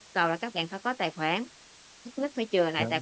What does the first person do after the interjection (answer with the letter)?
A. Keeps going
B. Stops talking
A